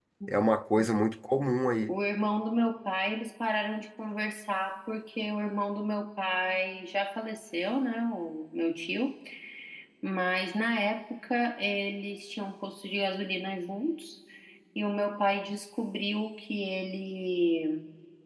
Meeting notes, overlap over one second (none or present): none